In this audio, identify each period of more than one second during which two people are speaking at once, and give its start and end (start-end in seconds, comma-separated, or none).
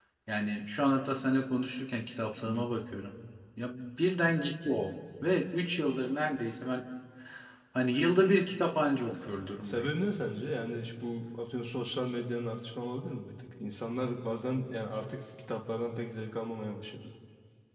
none